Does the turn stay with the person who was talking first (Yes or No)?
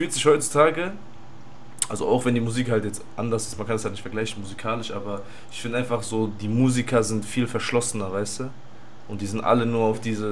Yes